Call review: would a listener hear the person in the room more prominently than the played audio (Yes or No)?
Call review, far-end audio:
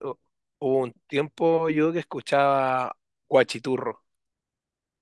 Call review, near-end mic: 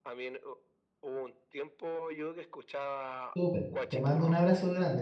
Yes